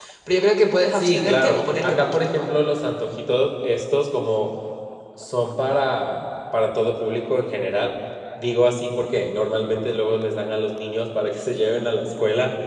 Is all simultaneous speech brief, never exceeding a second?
No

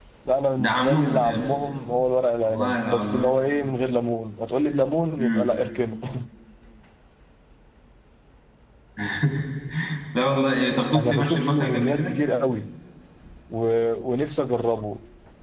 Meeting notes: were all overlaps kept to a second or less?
No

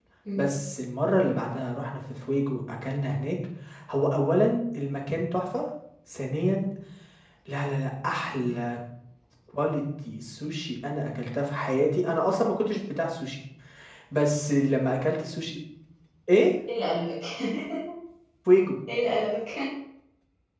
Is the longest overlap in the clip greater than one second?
No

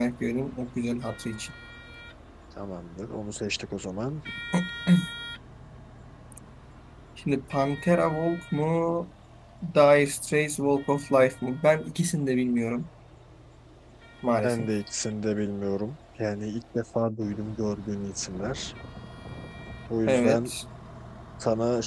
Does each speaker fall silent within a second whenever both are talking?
Yes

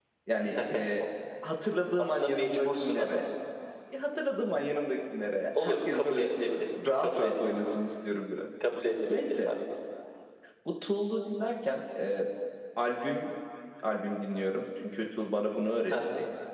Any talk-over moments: Yes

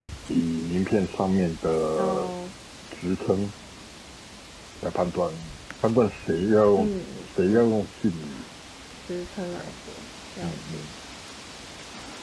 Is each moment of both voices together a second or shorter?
Yes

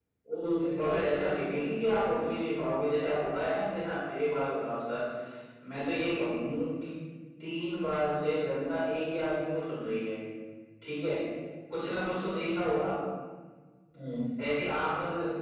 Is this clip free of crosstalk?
No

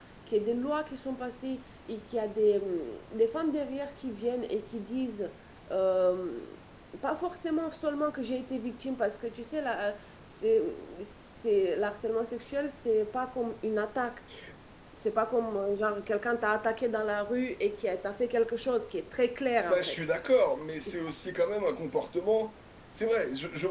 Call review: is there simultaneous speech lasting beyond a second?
No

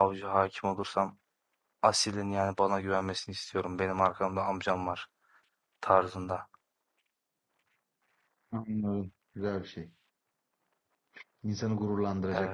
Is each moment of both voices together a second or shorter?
Yes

